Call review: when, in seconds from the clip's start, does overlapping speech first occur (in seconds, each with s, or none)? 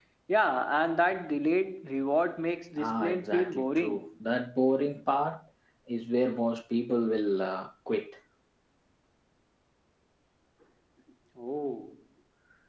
2.8 s